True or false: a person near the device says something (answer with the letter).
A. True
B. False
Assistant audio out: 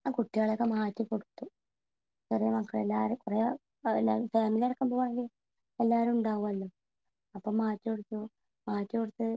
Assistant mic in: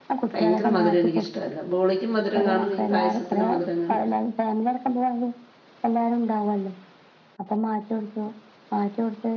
A